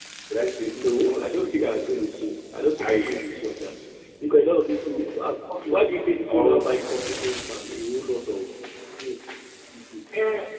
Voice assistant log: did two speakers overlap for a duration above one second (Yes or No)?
Yes